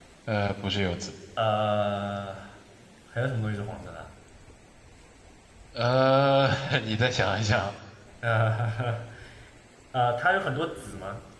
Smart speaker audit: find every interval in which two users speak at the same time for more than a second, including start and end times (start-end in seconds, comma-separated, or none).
none